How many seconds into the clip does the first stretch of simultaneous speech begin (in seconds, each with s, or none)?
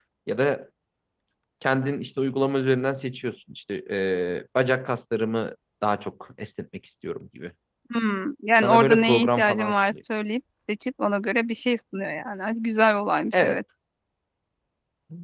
8.6 s